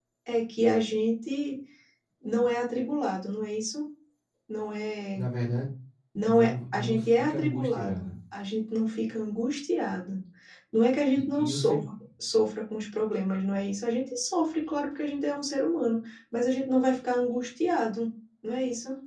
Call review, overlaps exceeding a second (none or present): present